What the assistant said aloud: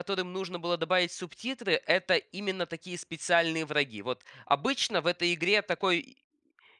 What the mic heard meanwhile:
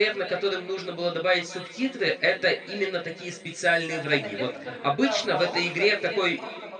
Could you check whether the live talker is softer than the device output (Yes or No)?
Yes